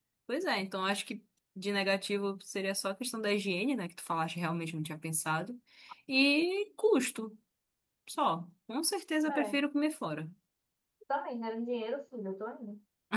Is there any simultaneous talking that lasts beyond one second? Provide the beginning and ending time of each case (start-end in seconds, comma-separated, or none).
none